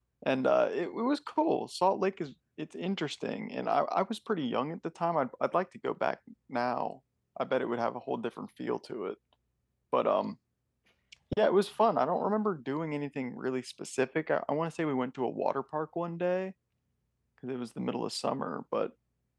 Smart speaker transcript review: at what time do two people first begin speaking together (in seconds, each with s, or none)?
none